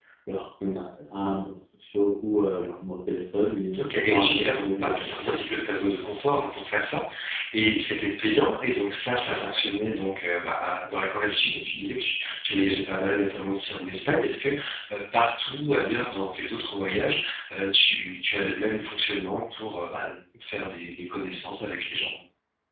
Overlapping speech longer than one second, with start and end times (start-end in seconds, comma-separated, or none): 3.8-5.2